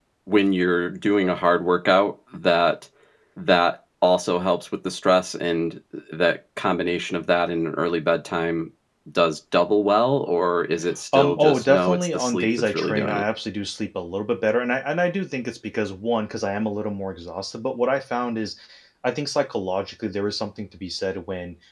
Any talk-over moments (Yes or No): Yes